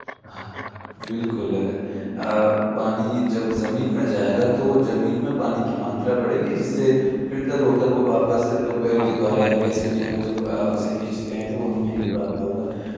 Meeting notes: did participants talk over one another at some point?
Yes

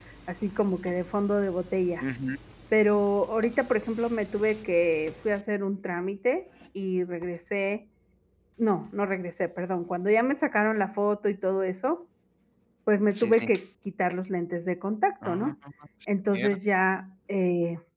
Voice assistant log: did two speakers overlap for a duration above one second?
No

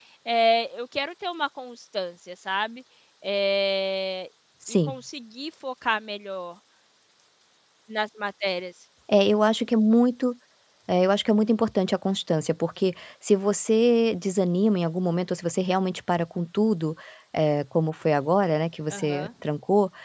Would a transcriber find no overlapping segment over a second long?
Yes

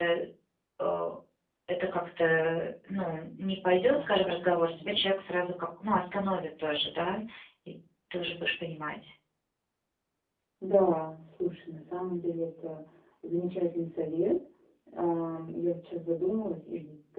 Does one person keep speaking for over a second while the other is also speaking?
Yes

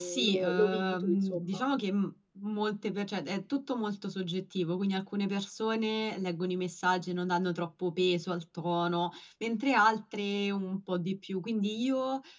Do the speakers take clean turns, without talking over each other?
No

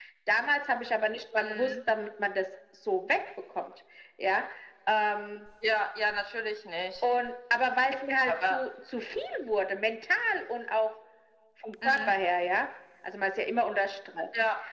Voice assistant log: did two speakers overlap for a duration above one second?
No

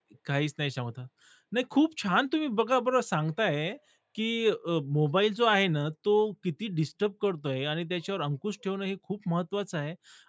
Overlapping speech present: No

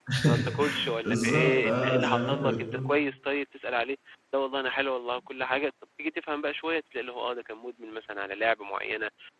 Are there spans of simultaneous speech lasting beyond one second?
Yes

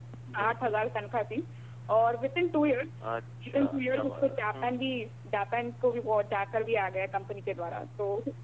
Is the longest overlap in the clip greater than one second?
Yes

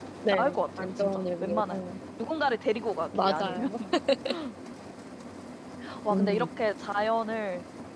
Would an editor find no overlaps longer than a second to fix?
No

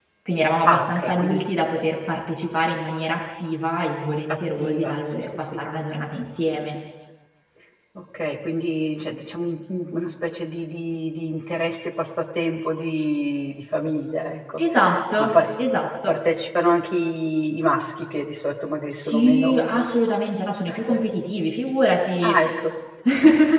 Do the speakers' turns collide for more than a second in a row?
Yes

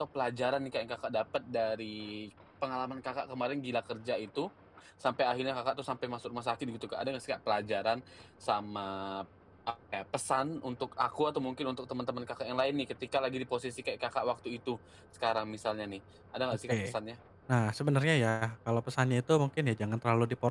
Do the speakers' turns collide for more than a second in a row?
No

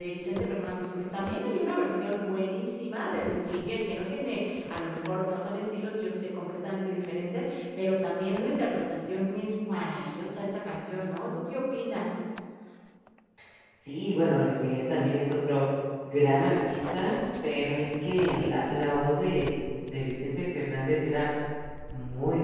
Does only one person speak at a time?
Yes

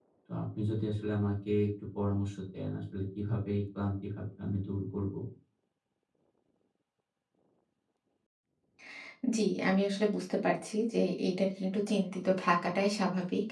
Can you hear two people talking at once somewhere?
No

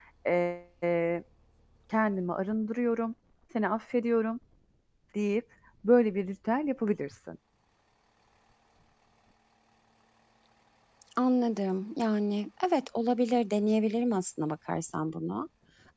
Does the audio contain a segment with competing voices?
No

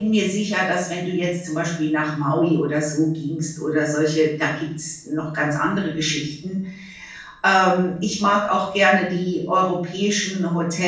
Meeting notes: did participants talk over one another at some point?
No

